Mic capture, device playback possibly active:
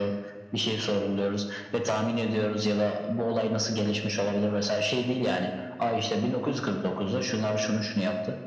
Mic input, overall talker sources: echo only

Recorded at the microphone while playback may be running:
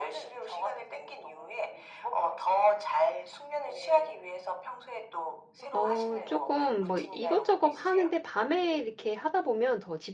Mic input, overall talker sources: both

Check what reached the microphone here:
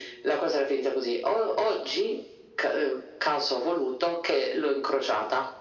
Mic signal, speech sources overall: echo only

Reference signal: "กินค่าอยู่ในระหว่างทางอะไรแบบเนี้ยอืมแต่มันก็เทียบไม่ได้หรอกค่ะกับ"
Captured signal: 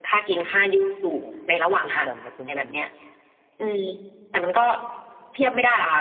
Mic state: both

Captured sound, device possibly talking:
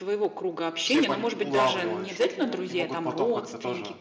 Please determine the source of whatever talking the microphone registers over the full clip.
both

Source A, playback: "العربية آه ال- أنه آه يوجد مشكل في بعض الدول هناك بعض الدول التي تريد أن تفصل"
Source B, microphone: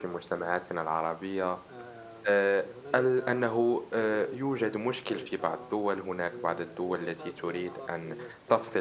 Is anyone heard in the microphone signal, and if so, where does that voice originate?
both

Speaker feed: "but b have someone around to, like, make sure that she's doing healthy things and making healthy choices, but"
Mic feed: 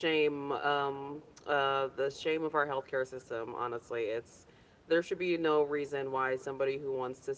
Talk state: user only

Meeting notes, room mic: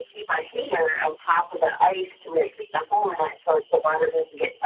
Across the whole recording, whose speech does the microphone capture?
echo only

